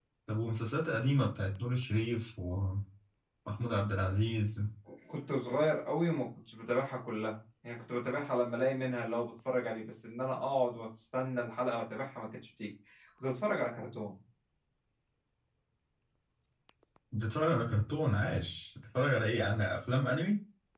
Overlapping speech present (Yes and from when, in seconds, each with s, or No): No